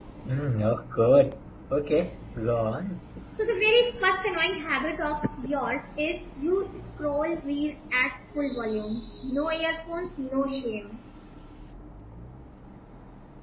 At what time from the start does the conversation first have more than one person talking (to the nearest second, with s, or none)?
none